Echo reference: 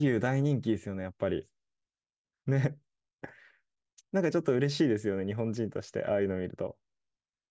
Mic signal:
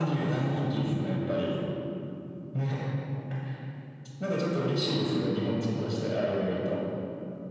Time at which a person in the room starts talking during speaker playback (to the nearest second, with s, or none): 5 s